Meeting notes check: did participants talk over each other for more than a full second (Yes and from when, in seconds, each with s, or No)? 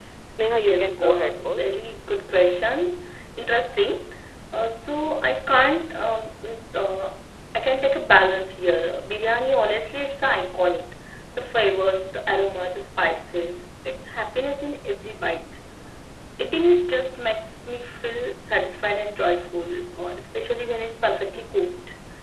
Yes, from 0.5 s